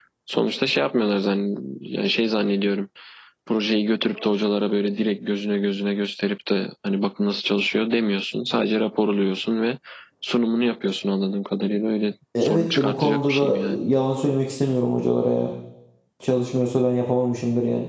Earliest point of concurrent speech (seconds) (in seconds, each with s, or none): 12.3 s